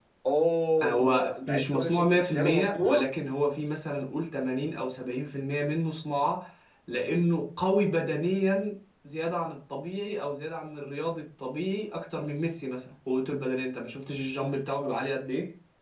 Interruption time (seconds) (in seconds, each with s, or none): 0.8 s